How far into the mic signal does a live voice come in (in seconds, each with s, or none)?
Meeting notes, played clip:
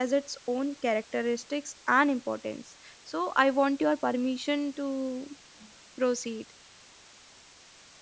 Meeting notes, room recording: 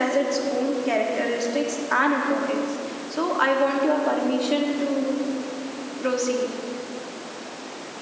none